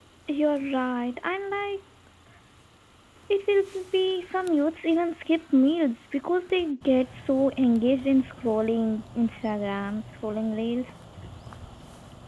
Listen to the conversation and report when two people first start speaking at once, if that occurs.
none

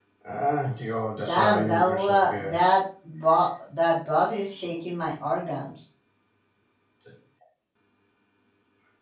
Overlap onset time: 1.2 s

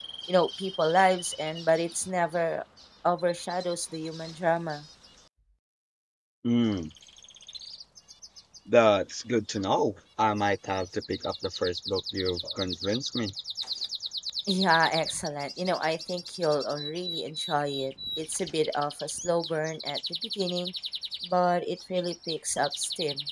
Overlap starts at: none

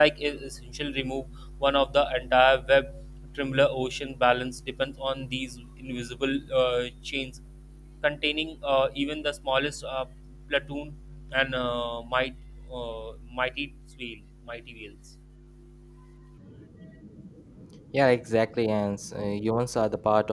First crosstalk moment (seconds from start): none

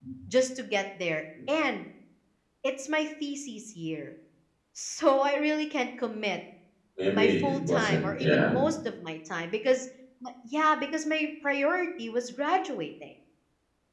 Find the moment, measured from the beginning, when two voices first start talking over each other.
7.1 s

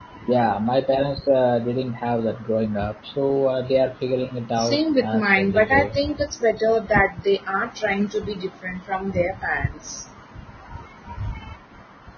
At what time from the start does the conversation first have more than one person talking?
4.6 s

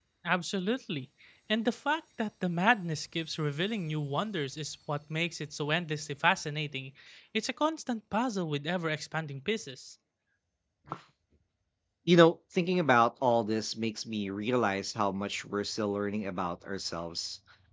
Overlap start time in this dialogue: none

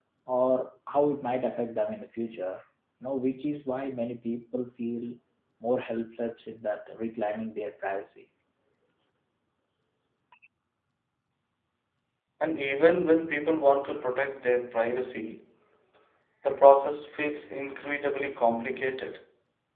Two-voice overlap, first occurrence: none

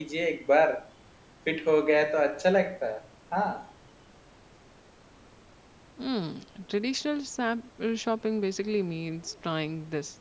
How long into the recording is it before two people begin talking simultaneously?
none

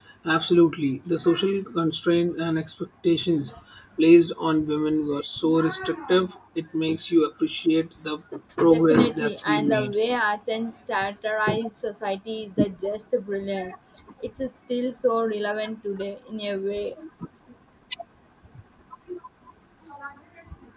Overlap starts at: 8.7 s

